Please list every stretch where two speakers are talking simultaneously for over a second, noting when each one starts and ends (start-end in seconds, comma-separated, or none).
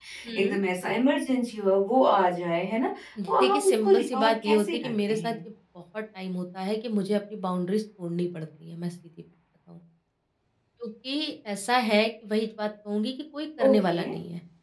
3.3-5.4